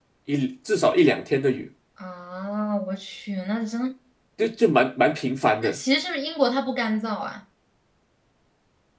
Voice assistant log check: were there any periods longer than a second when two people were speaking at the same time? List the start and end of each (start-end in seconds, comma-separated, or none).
none